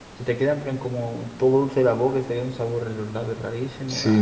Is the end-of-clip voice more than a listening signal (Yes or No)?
Yes